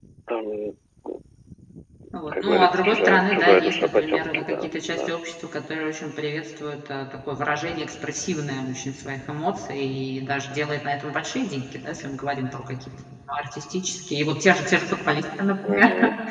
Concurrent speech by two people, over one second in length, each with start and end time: 2.4-5.1

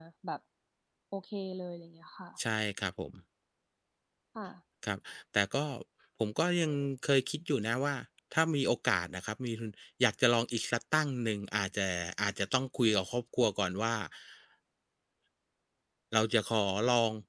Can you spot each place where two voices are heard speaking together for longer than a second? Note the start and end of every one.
none

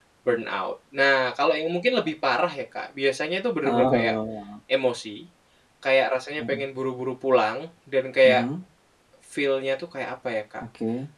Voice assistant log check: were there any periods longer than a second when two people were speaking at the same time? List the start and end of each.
none

